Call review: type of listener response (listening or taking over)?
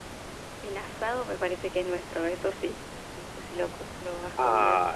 taking over